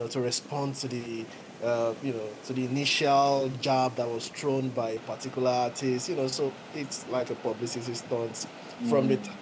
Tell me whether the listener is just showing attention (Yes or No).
No